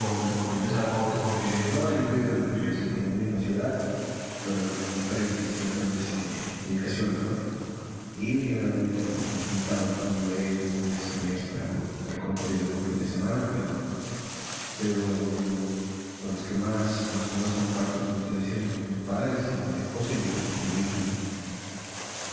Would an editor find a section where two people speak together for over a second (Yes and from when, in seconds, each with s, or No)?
Yes, from 1.7 s